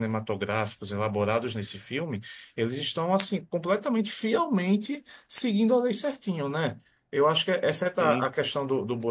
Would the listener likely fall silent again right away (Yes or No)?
Yes